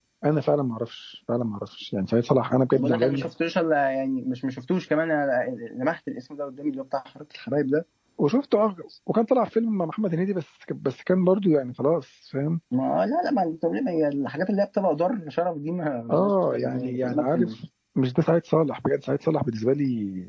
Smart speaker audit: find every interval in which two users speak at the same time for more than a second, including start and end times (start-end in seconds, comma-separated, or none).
16.1-17.4